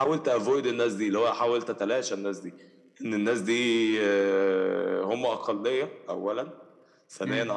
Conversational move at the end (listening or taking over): listening